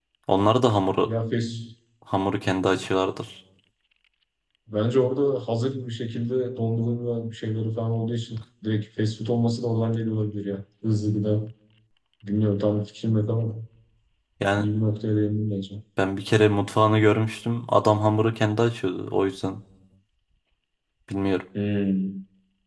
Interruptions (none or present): none